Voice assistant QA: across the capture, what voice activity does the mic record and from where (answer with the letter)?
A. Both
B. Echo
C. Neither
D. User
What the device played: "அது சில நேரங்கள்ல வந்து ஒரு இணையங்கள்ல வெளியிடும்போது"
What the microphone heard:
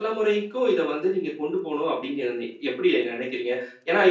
D